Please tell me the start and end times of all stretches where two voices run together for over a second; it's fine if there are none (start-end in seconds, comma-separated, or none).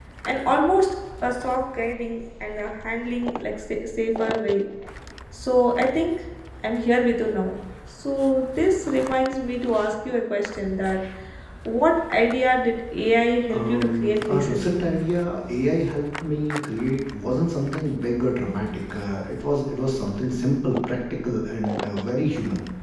13.5-14.8